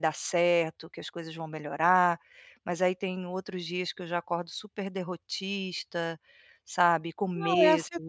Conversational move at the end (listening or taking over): taking over